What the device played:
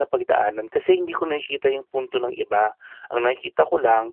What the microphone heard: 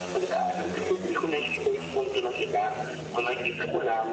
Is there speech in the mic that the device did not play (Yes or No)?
No